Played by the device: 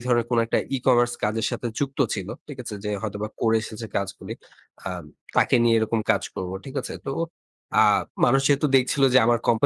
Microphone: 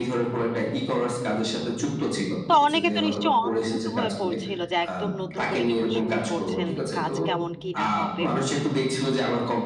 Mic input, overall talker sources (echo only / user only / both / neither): both